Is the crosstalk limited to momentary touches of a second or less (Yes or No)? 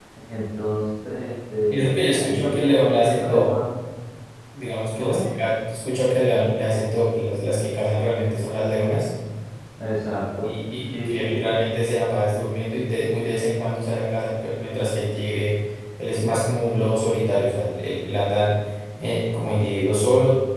No